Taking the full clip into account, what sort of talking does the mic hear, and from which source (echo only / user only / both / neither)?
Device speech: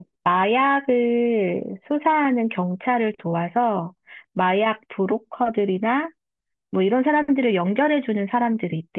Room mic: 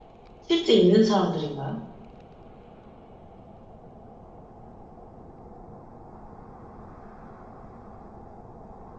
user only